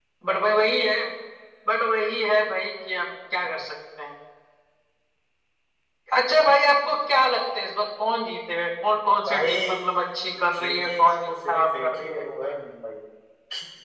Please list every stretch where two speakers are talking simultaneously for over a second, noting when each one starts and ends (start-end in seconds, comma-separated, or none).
10.5-12.2